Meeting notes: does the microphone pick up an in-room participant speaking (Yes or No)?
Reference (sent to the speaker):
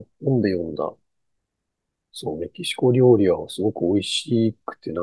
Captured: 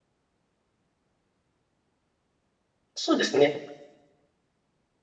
Yes